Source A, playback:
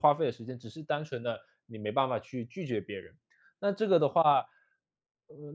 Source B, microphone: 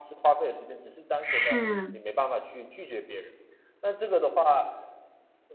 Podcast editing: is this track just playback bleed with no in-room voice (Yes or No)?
No